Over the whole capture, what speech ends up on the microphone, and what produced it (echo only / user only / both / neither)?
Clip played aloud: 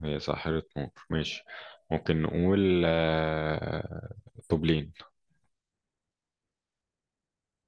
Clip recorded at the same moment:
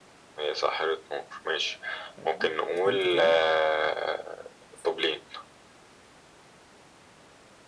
both